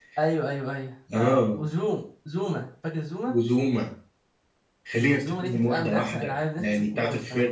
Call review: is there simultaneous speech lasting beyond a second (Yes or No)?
Yes